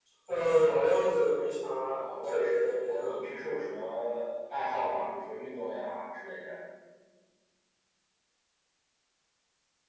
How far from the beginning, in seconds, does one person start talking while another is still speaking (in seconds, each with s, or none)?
1.9 s